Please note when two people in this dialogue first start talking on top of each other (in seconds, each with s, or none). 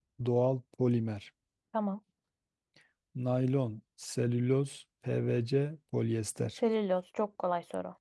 none